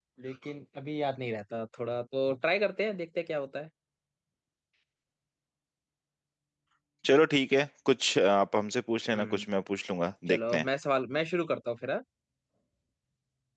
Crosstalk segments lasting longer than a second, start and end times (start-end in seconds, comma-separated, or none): none